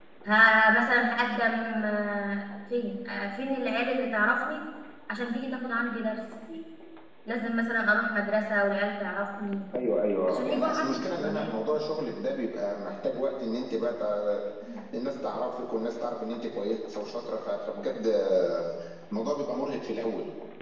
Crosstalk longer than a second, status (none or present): present